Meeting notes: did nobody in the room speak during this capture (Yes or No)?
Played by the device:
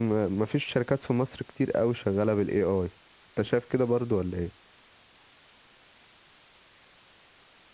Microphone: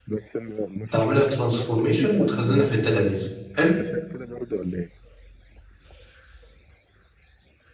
No